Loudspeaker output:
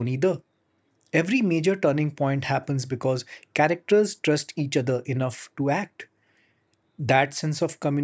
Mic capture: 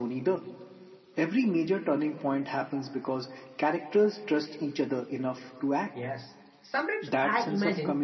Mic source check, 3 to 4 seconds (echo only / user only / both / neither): echo only